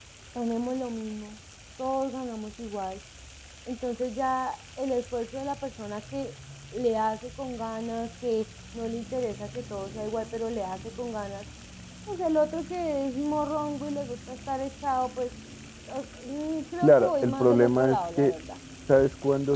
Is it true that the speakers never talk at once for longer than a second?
No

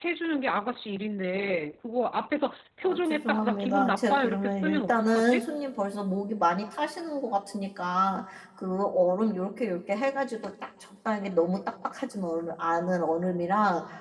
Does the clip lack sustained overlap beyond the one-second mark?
No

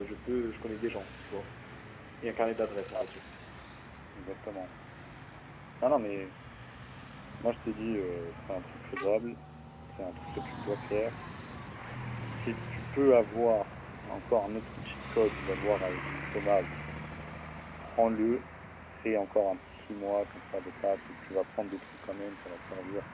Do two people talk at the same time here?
No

